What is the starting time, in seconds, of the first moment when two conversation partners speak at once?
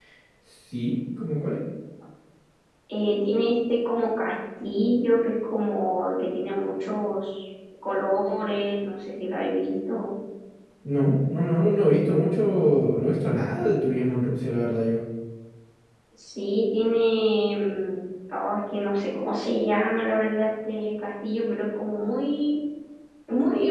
none

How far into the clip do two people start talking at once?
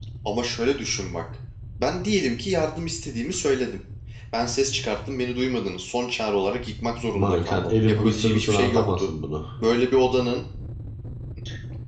7.1 s

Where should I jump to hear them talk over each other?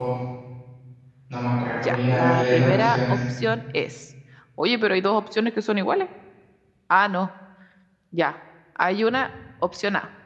1.7 s

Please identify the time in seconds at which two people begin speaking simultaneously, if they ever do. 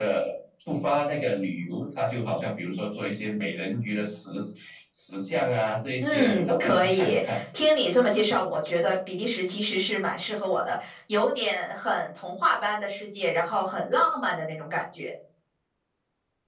6.0 s

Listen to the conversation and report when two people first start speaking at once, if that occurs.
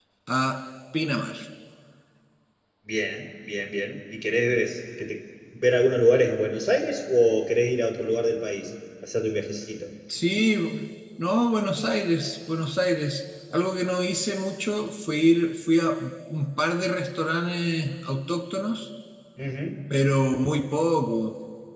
none

